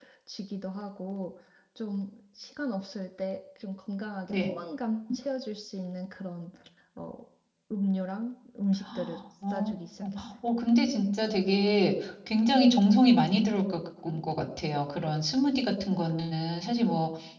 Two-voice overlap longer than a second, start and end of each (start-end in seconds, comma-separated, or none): none